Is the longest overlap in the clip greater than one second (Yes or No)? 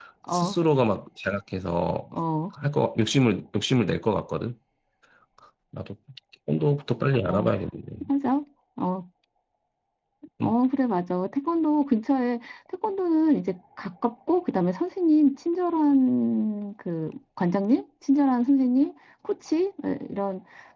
No